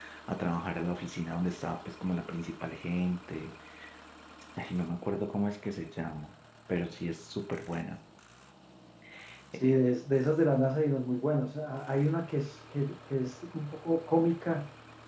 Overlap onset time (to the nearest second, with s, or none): none